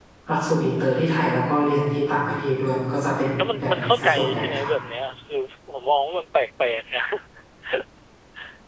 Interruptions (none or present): present